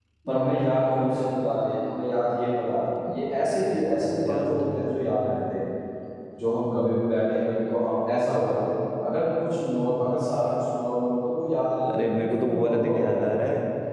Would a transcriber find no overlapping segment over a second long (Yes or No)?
No